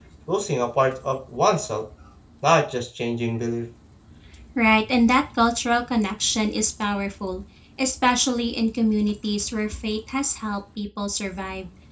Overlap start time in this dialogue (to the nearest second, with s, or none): none